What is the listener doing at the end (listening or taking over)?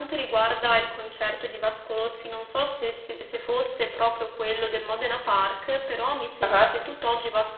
listening